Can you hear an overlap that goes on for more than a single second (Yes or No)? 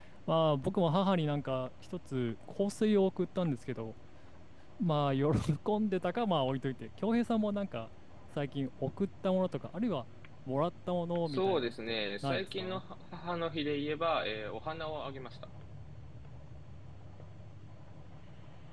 Yes